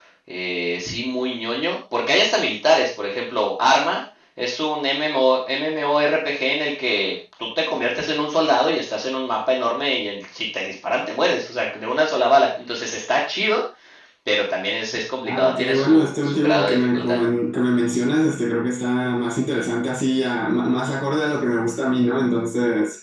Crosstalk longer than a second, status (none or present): present